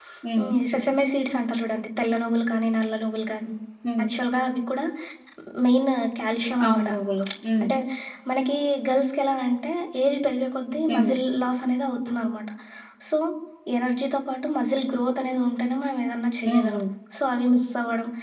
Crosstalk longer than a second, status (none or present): none